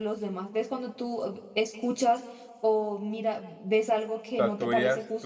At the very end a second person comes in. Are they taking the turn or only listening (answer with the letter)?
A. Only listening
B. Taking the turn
B